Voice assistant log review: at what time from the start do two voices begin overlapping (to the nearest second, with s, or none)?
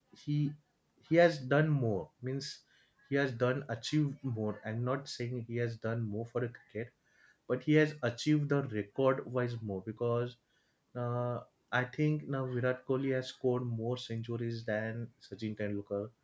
none